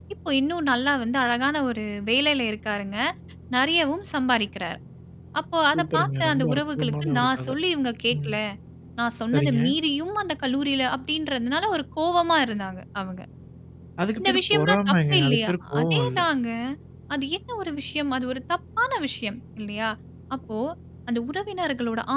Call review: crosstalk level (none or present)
present